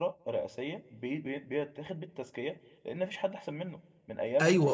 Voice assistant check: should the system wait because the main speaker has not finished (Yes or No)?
No